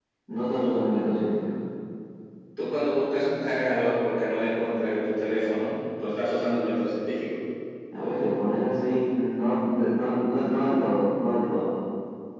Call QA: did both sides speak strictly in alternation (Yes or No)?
Yes